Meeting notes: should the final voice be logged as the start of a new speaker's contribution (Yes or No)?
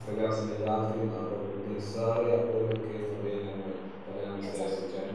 No